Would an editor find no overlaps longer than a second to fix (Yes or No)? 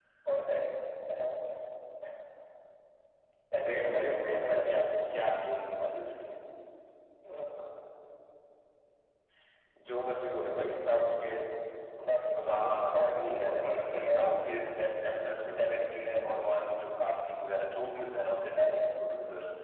No